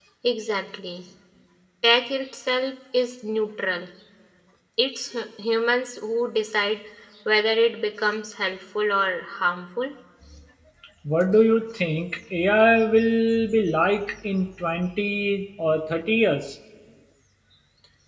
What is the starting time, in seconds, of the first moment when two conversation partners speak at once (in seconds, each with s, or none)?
none